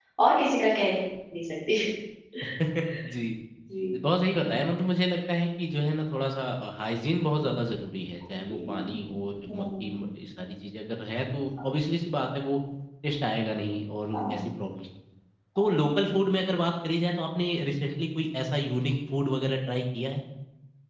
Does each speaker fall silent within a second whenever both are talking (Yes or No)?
Yes